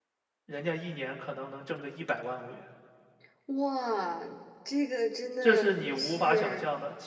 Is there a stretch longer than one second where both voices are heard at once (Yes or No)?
Yes